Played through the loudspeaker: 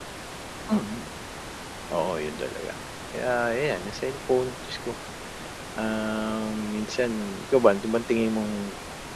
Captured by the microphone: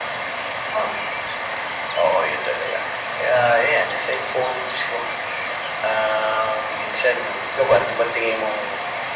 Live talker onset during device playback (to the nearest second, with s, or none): none